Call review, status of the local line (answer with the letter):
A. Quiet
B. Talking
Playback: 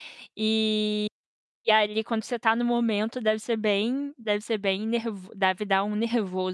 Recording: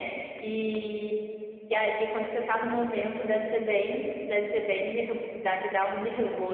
A